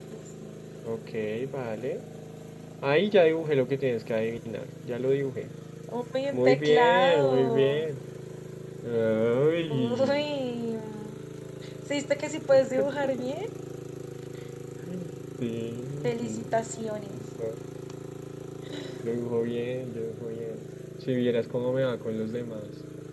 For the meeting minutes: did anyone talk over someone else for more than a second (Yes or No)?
Yes